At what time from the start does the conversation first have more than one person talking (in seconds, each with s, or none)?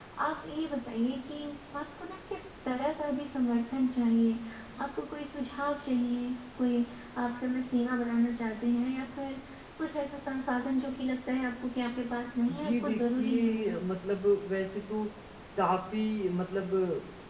12.5 s